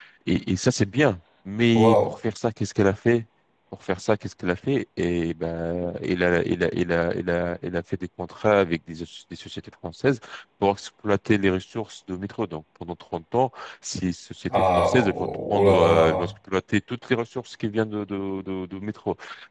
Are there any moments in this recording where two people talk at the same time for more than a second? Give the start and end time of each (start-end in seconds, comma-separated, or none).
14.8-16.3